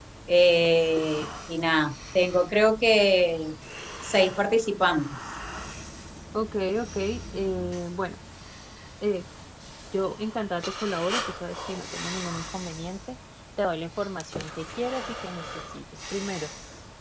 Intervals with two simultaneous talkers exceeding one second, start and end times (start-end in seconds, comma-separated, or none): none